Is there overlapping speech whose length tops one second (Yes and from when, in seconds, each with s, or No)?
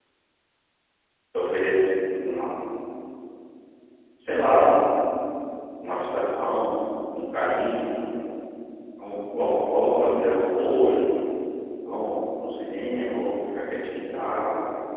Yes, from 9.3 s